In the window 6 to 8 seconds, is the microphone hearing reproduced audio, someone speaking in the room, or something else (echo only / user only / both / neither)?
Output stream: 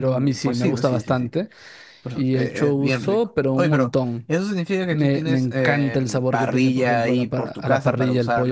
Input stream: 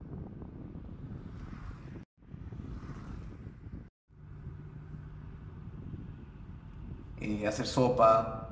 user only